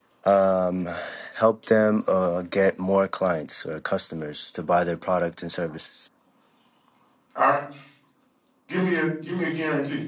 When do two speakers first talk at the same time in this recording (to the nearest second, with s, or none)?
none